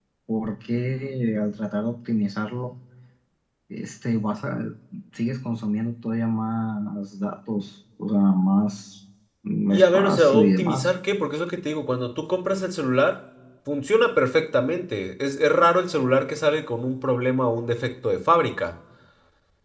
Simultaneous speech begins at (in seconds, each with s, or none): 9.7 s